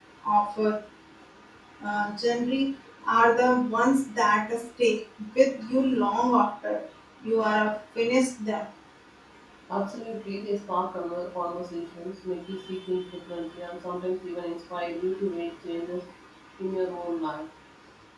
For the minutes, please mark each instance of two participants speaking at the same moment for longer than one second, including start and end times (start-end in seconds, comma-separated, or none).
none